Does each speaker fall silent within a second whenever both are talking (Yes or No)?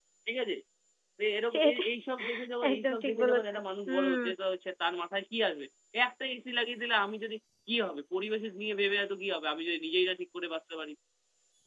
No